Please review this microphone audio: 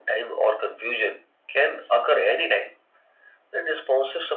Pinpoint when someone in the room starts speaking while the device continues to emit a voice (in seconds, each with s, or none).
none